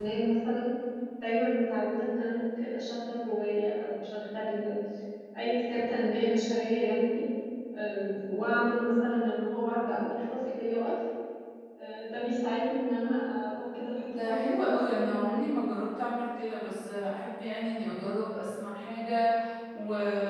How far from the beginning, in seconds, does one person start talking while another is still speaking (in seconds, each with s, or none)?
14.1 s